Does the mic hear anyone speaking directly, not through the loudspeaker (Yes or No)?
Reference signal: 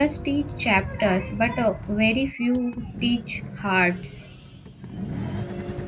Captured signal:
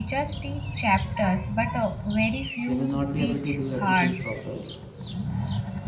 Yes